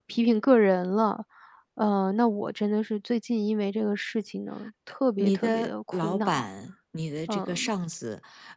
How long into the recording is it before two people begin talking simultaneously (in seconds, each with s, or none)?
5.2 s